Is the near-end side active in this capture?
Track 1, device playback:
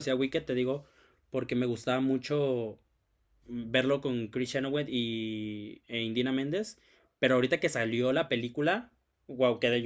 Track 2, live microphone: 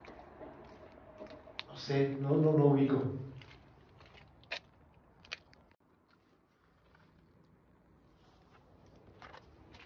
Yes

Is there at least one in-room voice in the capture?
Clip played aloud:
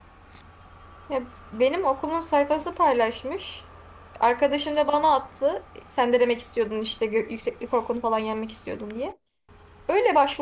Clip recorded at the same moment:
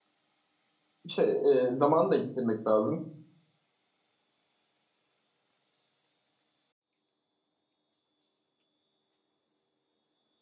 Yes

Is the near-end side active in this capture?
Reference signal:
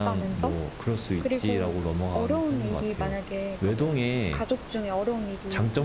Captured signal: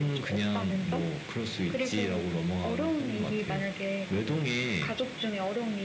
No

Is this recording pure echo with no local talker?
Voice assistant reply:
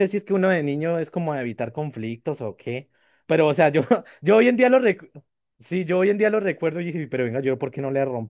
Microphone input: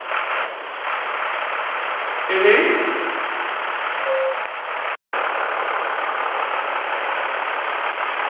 No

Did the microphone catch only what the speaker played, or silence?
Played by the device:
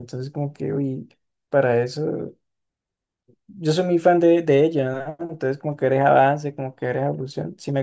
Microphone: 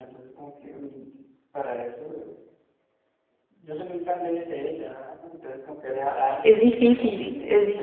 No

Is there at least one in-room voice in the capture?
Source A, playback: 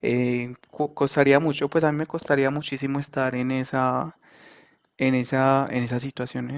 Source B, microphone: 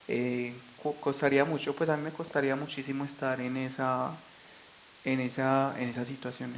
No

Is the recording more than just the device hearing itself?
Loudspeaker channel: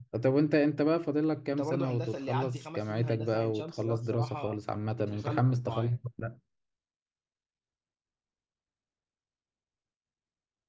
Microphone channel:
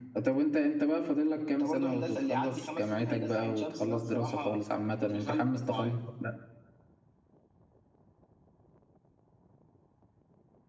No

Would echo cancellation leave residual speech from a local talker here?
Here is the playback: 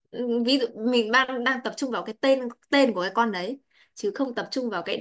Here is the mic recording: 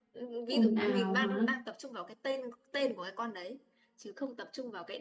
Yes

